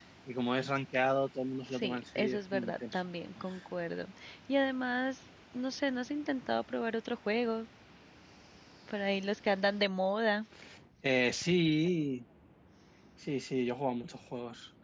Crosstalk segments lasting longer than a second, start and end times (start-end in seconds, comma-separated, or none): 1.7-3.0